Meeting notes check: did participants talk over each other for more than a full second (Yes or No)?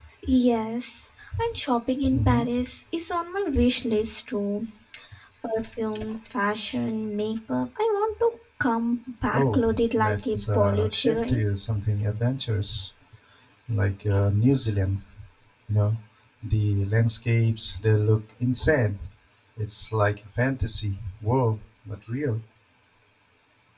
Yes